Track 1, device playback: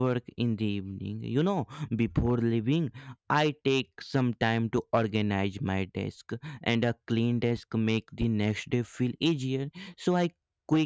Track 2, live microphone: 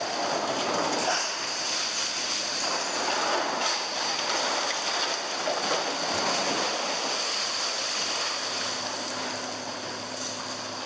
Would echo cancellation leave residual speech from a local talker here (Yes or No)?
No